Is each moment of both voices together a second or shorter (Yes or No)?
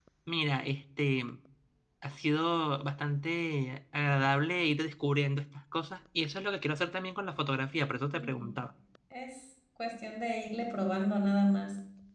Yes